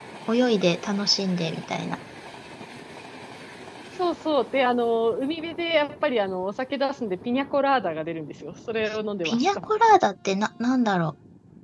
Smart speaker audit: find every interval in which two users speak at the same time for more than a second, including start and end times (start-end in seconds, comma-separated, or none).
none